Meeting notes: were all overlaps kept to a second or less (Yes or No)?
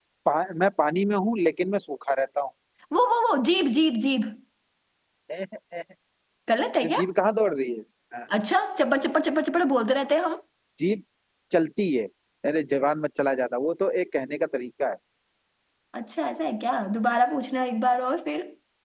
Yes